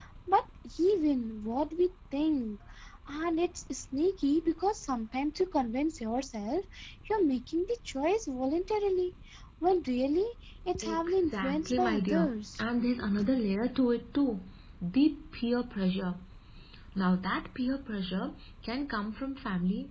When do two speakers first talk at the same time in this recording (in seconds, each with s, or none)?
10.8 s